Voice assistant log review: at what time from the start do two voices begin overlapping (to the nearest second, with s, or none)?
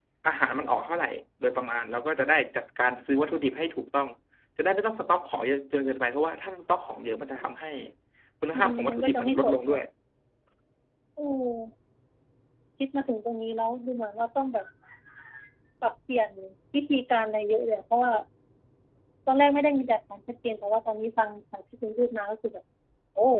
9 s